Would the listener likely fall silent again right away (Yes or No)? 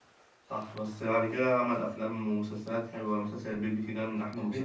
No